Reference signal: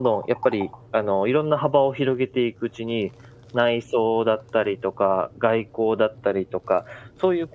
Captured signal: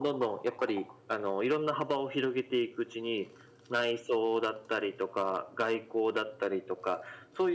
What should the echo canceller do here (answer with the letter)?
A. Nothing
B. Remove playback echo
B